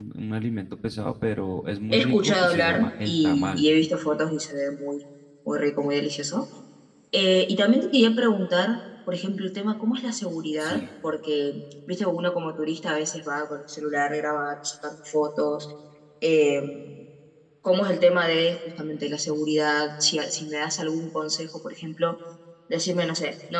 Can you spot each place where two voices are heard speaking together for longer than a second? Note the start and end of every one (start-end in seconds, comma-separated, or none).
1.9-3.6